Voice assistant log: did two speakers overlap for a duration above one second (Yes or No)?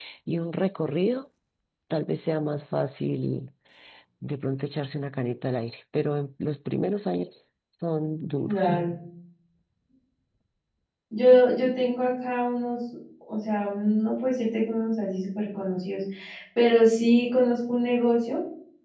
No